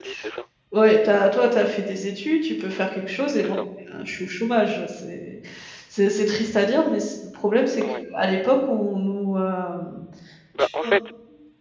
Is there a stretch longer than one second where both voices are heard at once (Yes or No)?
No